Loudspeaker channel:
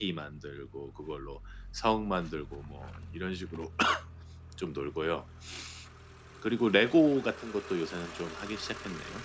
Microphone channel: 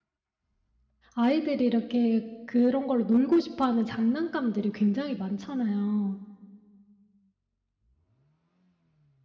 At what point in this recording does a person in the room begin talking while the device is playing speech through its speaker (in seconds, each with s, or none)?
1.2 s